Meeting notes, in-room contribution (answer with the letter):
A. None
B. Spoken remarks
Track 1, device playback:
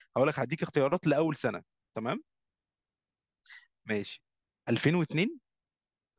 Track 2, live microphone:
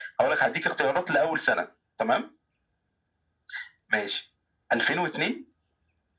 A